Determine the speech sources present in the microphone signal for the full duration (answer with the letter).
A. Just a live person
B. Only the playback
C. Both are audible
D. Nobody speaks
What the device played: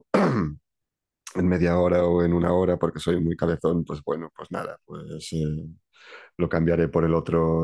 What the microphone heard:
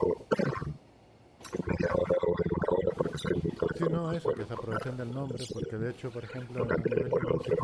C